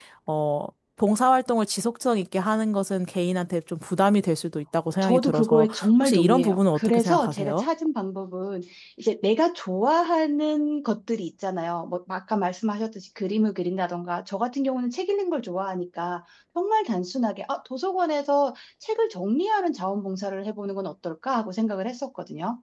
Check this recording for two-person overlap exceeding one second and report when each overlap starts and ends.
5.0-7.7

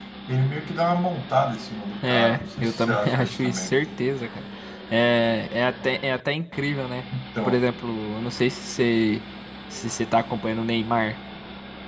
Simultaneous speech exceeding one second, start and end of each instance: 2.0-3.7

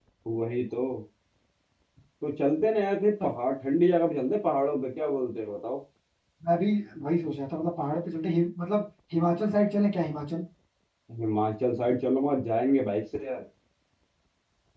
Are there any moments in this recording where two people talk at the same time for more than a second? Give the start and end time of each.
none

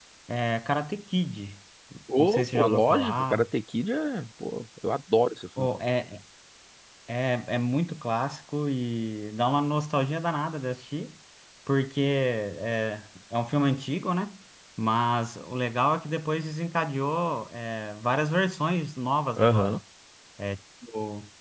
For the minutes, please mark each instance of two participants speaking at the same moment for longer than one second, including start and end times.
2.2-3.5

